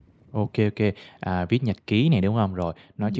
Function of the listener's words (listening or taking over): listening